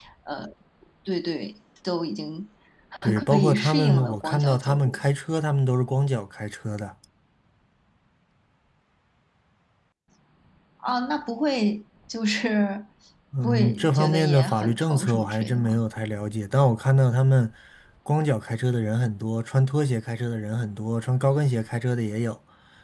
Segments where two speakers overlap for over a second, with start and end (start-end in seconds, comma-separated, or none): 3.3-5.0, 13.4-15.8